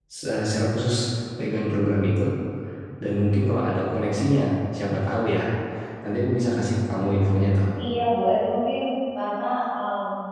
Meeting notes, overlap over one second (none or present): none